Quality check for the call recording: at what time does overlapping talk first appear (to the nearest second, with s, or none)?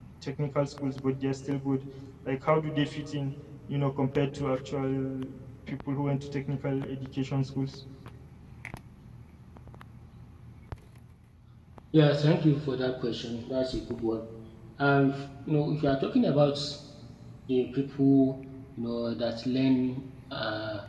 none